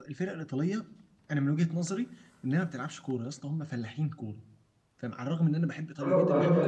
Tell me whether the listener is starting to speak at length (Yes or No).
Yes